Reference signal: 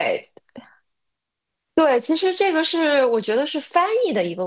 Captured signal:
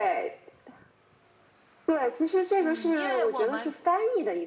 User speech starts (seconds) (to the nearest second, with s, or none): 3 s